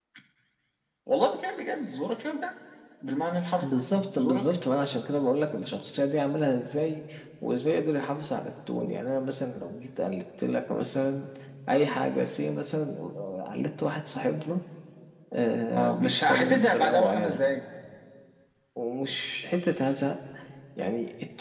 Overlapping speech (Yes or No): Yes